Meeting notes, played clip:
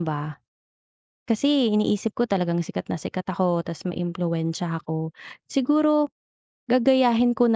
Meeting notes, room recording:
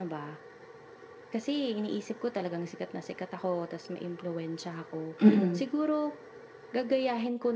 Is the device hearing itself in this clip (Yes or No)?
Yes